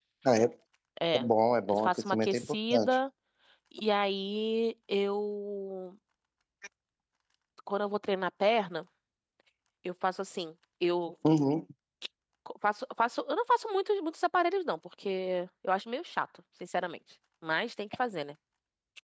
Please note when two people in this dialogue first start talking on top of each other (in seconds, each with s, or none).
1.7 s